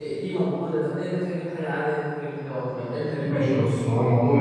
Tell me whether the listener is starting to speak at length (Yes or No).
Yes